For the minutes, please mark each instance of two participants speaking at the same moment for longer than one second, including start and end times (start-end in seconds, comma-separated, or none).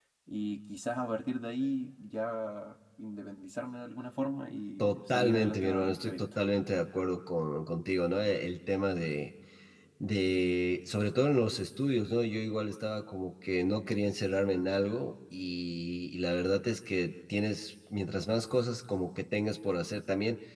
4.8-6.2